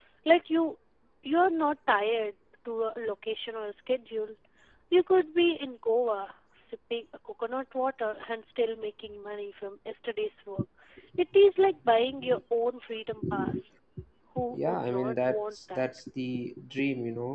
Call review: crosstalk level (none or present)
present